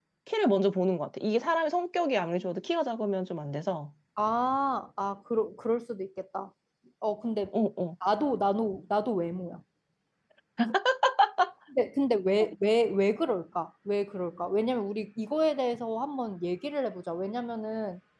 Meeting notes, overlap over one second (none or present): none